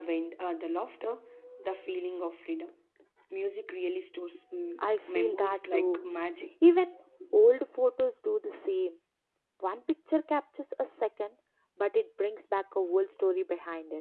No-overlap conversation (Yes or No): No